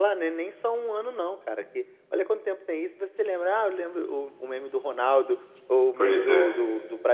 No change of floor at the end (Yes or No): Yes